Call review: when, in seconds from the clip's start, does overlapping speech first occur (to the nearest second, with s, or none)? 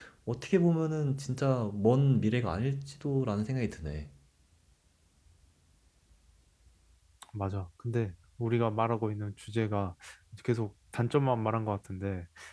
none